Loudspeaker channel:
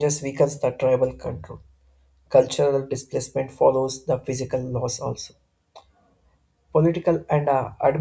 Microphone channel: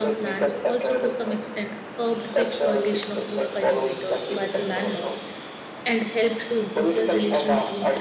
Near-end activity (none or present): present